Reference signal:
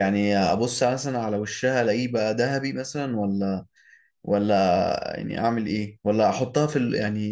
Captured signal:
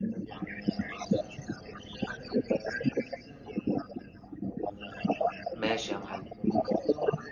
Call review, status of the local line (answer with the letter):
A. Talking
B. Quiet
A